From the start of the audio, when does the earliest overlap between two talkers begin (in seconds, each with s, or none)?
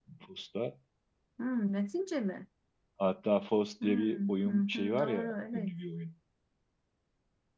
3.8 s